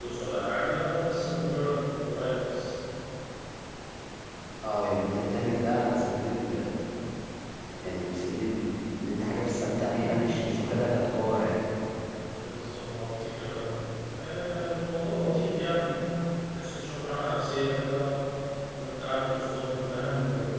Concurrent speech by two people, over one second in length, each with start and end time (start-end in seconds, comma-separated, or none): none